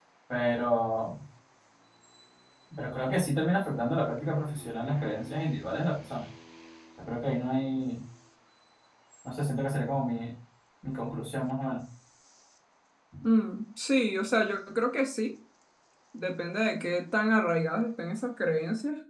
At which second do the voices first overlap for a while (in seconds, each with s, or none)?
none